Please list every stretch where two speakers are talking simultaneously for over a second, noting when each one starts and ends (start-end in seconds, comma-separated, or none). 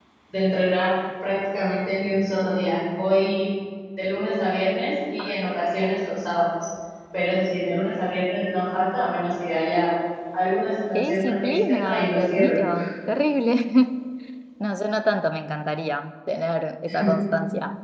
10.9-12.6